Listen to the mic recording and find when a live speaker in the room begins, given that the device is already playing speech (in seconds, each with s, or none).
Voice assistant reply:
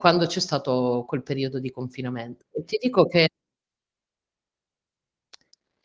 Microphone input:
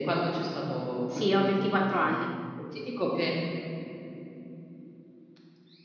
1.1 s